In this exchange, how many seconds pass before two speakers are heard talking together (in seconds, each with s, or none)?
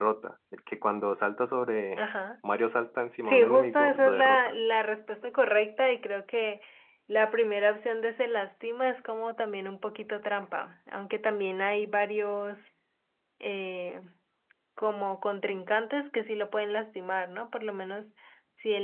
3.2 s